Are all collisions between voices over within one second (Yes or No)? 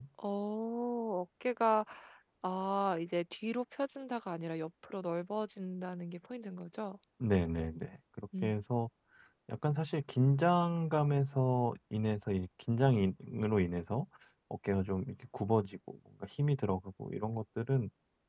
Yes